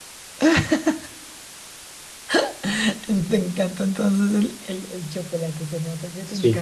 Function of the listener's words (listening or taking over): taking over